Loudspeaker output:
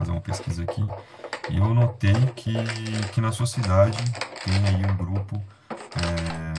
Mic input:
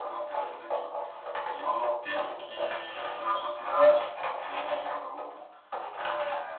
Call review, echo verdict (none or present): present